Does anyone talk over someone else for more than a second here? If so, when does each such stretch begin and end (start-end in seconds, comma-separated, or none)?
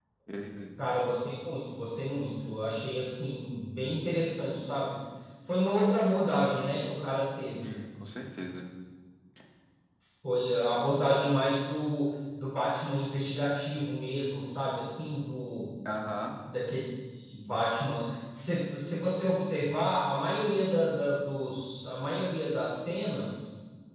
none